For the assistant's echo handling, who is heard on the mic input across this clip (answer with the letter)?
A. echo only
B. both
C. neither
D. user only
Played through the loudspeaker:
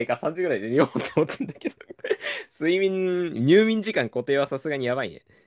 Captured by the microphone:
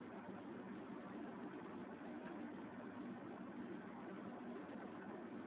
C